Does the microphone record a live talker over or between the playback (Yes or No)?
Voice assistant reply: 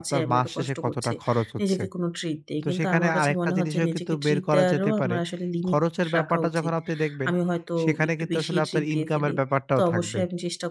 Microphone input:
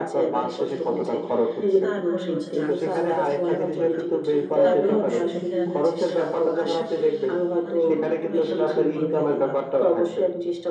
Yes